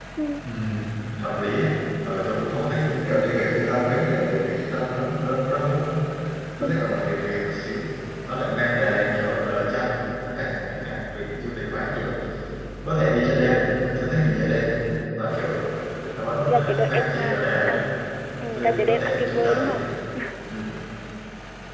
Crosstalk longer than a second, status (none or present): present